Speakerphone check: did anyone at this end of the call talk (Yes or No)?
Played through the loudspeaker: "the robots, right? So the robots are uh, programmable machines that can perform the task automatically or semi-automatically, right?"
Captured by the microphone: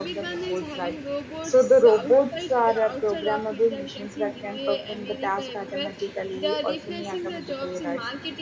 Yes